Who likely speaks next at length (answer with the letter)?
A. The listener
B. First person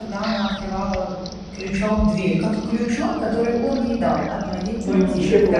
A